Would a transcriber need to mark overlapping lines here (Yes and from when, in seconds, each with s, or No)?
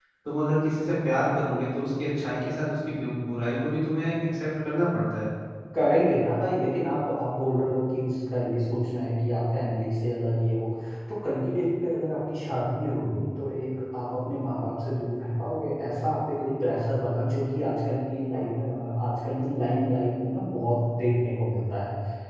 No